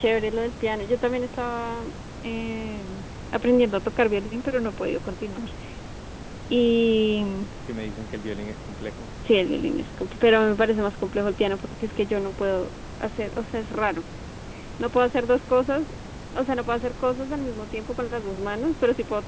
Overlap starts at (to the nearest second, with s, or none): none